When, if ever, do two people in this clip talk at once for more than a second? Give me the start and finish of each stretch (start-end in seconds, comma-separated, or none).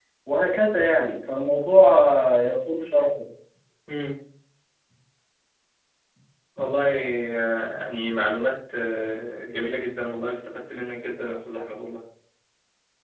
none